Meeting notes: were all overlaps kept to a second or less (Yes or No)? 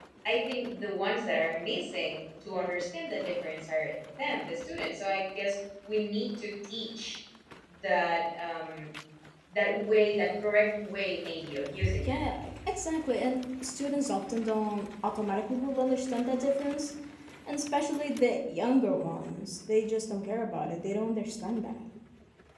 Yes